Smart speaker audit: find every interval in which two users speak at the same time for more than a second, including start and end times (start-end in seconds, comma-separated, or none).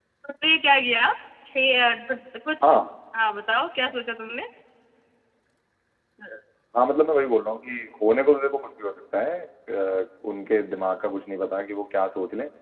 none